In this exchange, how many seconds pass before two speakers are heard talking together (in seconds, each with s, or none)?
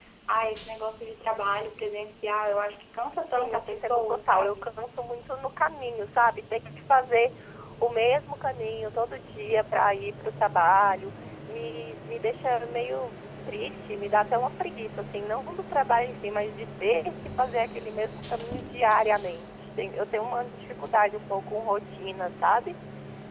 3.3 s